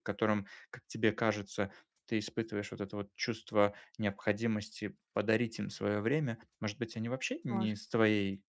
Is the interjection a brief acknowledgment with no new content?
Yes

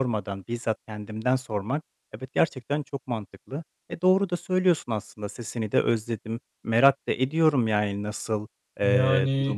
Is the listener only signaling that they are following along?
Yes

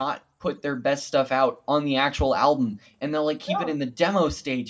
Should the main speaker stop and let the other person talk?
No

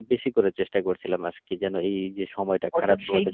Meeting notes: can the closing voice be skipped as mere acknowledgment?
No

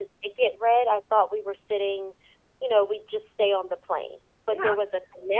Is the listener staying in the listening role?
Yes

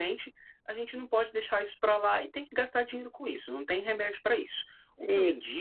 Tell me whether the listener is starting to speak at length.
No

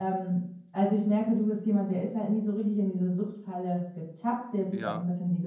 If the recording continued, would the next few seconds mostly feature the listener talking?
No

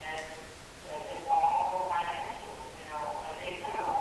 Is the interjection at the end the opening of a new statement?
No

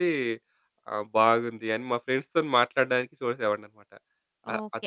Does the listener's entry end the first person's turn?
Yes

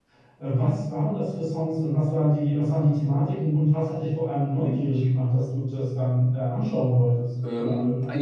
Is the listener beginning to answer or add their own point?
Yes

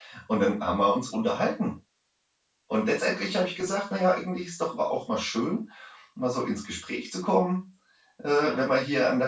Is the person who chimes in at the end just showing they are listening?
Yes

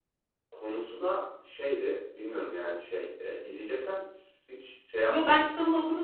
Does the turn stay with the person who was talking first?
No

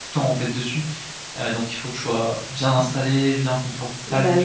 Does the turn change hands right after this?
Yes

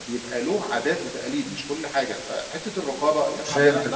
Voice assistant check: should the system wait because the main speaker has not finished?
No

